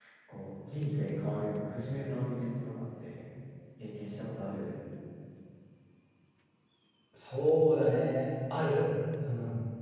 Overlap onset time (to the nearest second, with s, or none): none